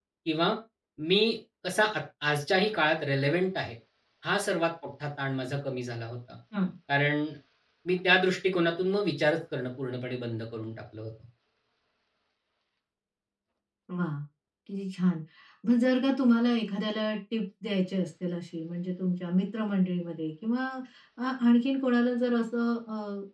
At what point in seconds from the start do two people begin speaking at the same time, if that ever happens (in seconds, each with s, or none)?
none